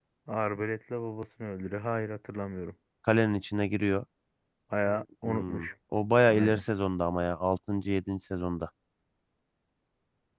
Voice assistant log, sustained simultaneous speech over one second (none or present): none